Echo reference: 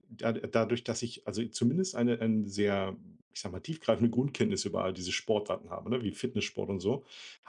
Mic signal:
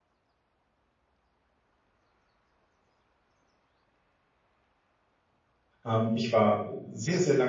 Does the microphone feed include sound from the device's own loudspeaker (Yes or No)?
No